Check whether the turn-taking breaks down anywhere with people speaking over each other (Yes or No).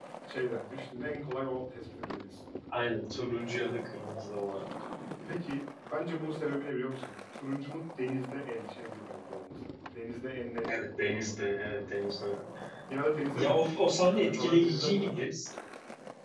Yes